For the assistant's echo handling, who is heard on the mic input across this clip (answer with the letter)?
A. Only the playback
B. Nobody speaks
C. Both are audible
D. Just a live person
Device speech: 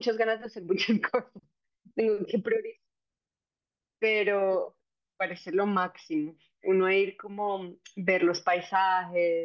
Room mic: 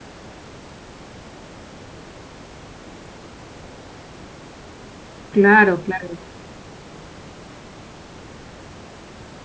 D